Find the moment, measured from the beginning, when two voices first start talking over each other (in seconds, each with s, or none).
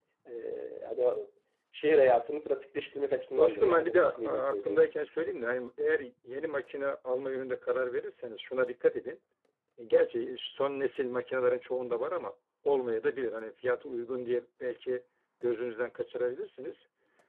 3.4 s